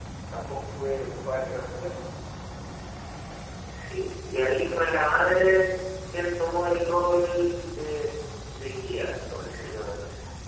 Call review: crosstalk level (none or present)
none